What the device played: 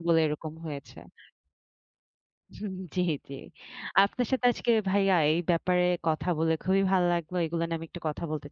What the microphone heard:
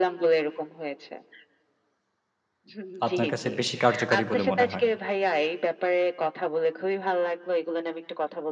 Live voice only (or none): আপনার কাছে বেশি কার্যকারী বলে মনে হয়?